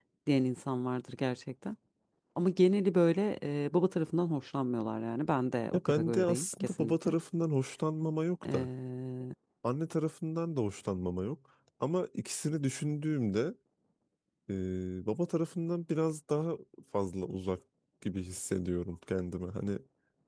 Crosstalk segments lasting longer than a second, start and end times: 5.9-7.1

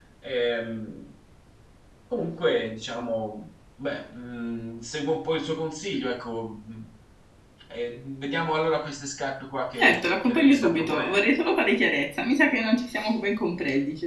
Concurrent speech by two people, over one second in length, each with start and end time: 9.8-11.3

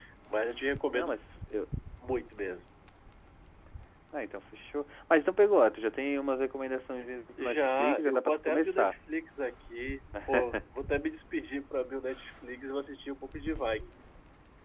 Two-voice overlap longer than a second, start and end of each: 7.4-8.9

